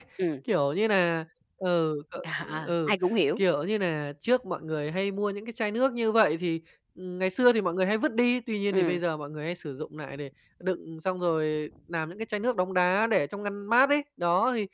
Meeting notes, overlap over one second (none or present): none